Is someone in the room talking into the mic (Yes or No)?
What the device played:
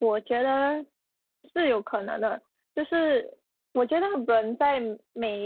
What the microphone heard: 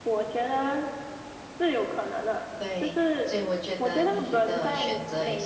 Yes